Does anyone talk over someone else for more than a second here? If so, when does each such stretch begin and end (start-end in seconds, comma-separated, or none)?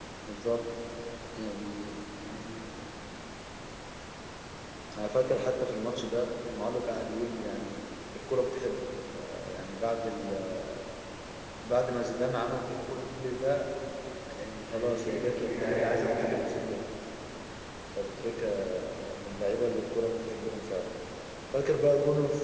14.7-16.4